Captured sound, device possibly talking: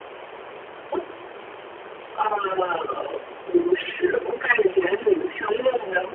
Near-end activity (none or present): none